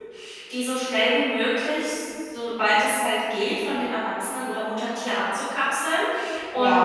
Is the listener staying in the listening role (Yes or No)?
Yes